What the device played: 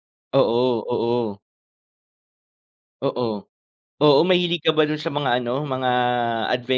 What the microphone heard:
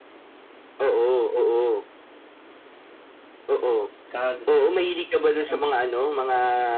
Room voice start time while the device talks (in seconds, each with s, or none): 4.1 s